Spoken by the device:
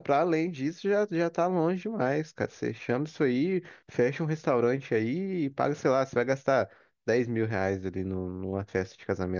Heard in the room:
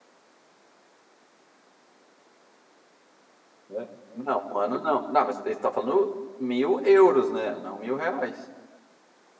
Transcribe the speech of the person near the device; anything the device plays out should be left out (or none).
né? Não, um ano não. Não, mas ele tá falando mil euros, né? Não mil reais.